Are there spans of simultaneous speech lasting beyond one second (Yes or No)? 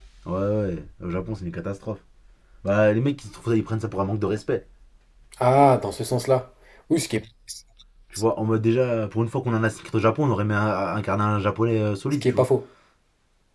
No